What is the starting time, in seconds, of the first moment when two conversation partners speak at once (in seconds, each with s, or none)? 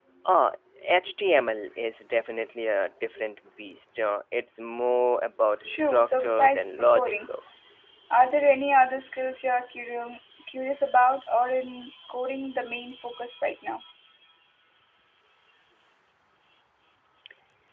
5.6 s